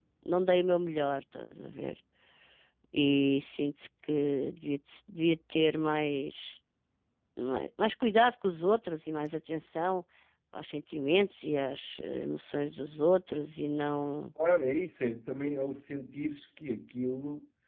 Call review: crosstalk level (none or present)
none